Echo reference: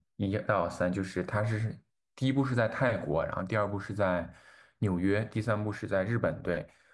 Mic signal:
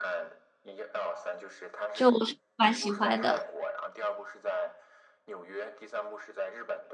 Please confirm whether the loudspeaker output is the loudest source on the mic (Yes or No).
No